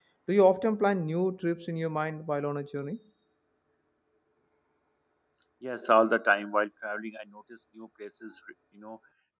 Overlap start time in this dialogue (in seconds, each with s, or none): none